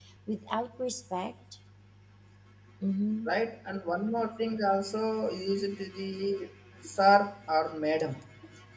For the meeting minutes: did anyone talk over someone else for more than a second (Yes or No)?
No